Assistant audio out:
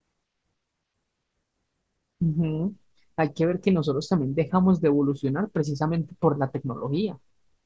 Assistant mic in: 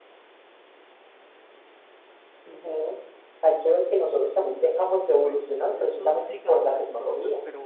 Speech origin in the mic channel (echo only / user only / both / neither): both